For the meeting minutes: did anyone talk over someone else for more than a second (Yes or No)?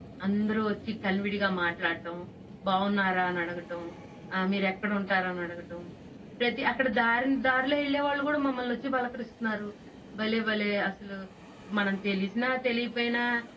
No